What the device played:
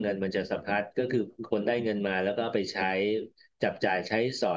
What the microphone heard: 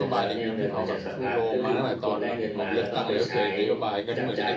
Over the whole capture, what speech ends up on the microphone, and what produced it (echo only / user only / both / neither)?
both